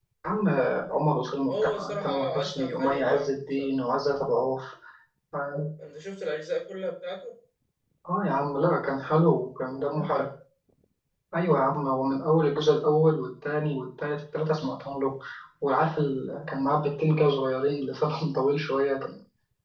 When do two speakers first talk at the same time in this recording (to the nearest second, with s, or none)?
1 s